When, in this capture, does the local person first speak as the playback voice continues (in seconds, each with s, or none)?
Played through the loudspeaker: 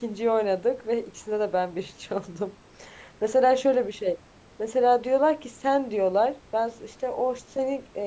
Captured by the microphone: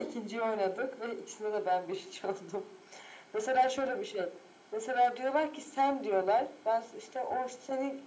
none